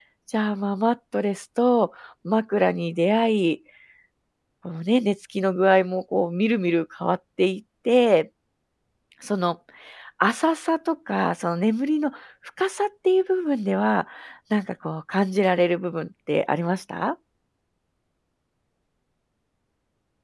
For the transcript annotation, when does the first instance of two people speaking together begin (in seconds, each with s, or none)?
none